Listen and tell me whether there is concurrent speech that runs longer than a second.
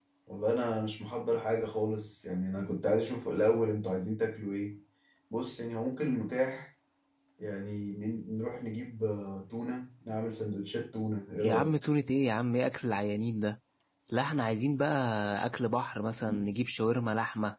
No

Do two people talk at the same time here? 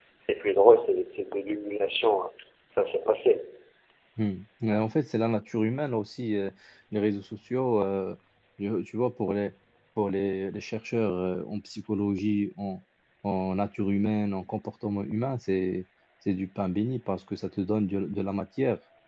No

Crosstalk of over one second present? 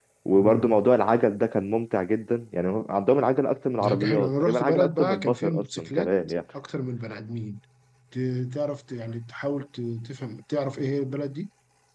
Yes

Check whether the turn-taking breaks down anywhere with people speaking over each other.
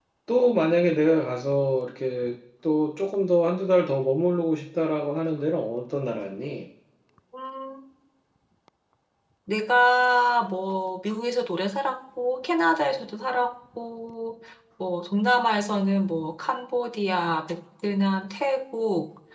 No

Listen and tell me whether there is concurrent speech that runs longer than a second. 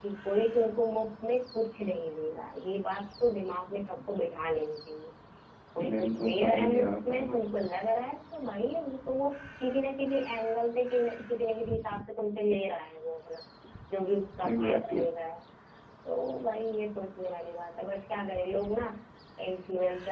Yes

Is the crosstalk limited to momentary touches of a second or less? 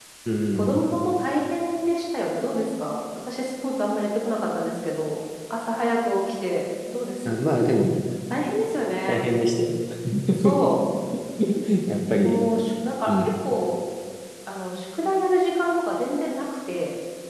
Yes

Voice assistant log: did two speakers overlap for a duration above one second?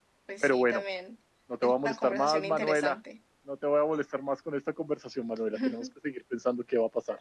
Yes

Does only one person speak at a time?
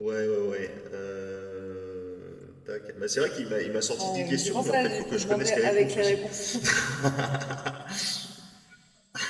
No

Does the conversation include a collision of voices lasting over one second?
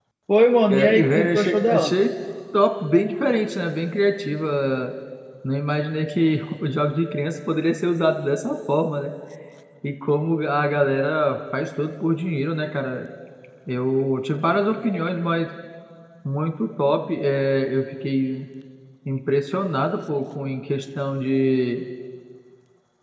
Yes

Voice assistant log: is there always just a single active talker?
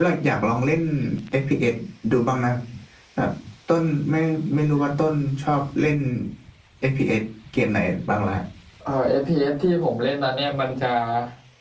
Yes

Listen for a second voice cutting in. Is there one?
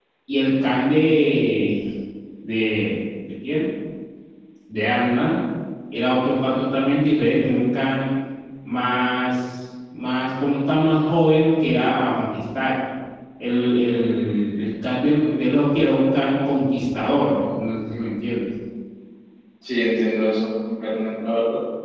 No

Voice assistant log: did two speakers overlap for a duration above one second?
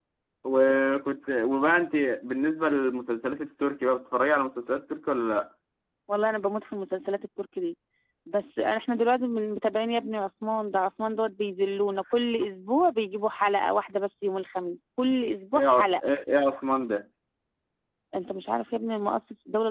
No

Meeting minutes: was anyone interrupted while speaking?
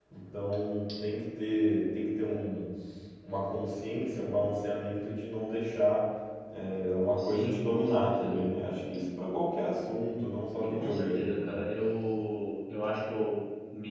Yes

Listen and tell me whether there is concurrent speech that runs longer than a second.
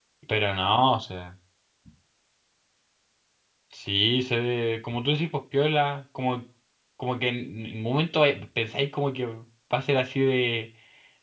No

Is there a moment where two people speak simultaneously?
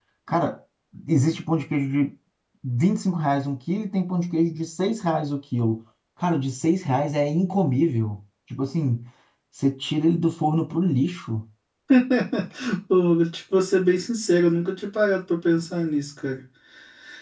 No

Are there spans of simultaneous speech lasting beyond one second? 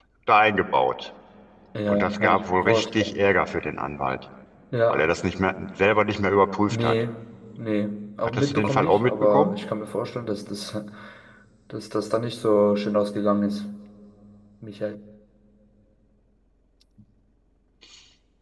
Yes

